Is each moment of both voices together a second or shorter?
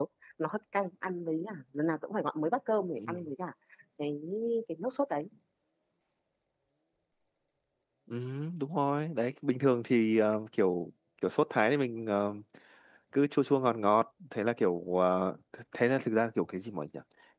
Yes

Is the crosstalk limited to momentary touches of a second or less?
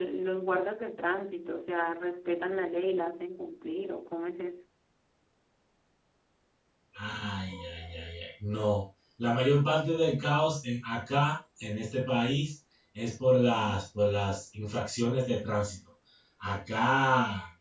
Yes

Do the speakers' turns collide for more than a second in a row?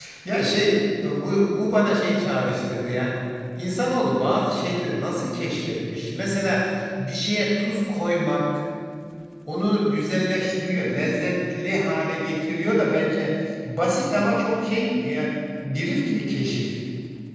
No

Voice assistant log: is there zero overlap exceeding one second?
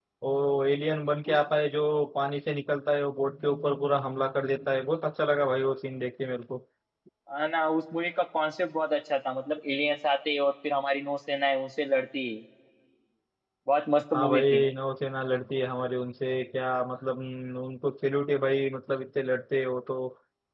Yes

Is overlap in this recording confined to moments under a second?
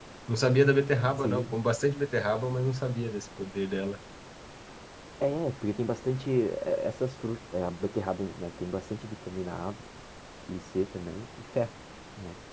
Yes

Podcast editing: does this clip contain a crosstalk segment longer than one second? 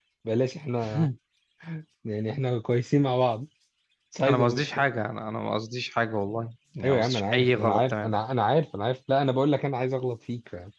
Yes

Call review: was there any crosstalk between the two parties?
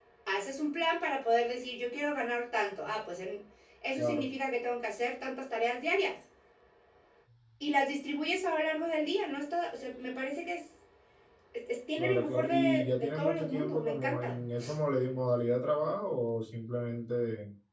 Yes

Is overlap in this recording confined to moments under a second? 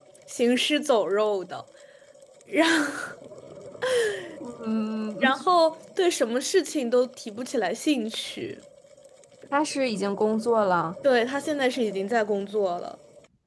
Yes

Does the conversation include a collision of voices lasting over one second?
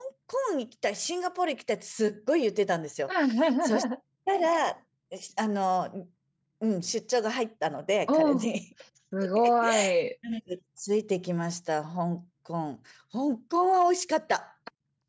No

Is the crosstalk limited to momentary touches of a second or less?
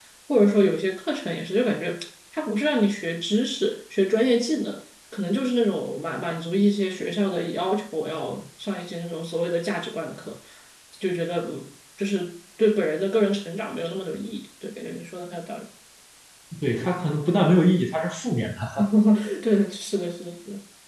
Yes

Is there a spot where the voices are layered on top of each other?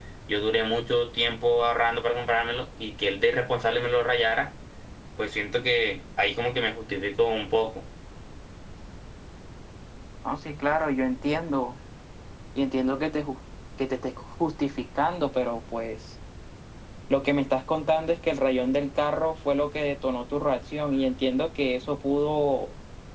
No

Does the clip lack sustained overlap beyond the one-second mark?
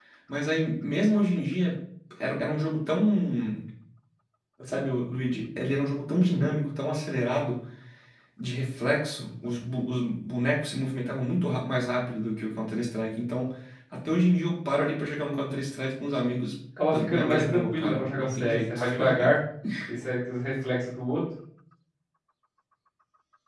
No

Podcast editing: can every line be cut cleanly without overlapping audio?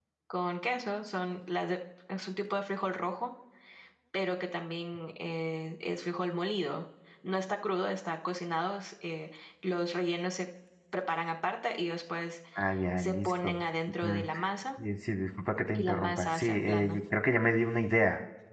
No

